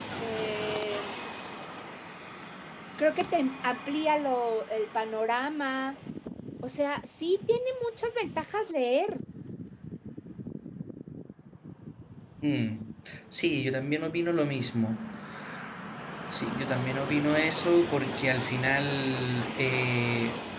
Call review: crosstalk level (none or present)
none